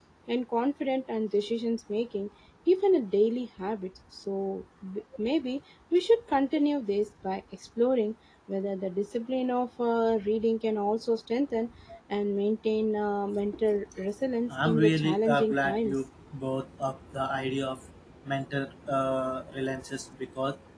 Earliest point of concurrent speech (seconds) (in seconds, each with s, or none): 14.5 s